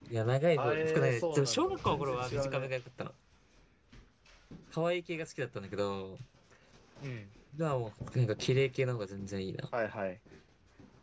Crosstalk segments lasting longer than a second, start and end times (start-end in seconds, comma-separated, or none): 0.6-2.7